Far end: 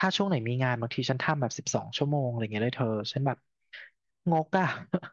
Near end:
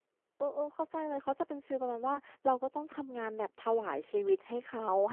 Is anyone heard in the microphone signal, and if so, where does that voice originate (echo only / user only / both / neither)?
user only